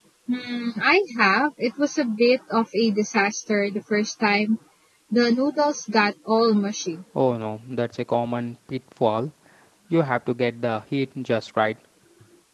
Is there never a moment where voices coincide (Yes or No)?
Yes